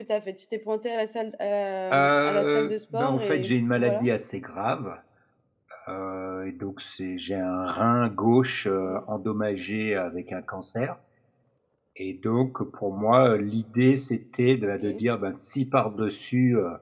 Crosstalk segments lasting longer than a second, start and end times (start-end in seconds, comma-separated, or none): 1.9-4.1